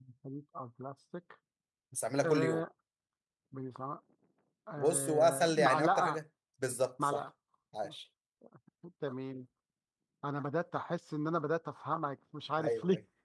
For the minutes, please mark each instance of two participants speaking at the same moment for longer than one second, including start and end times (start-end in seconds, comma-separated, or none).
4.8-6.2